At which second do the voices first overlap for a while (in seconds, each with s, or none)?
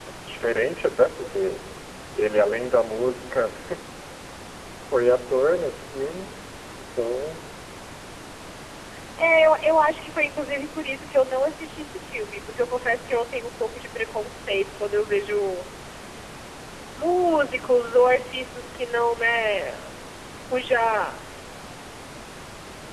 none